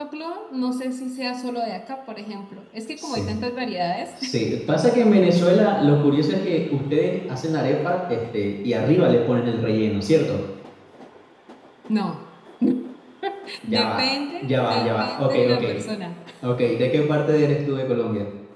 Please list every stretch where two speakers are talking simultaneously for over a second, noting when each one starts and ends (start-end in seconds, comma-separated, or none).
14.4-15.6